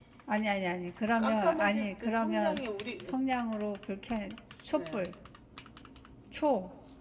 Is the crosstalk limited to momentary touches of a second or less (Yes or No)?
No